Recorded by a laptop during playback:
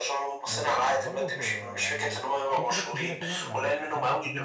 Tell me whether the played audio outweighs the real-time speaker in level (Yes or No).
Yes